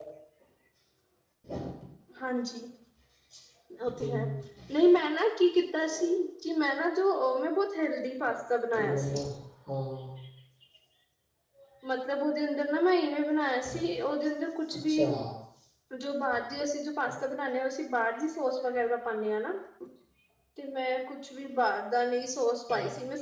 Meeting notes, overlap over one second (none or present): none